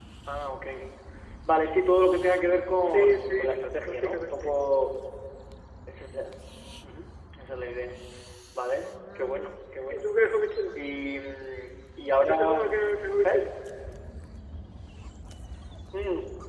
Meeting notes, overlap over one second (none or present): present